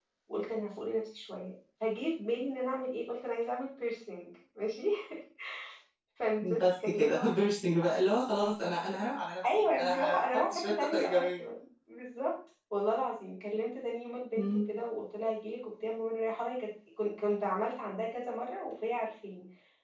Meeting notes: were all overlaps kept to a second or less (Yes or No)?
No